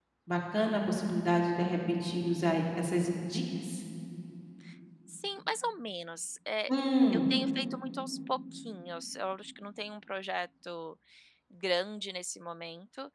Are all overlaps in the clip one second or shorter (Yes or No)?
Yes